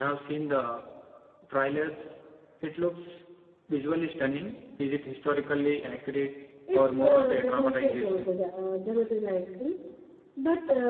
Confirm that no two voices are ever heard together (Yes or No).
No